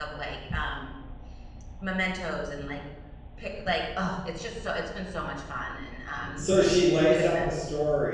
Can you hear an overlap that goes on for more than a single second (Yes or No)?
No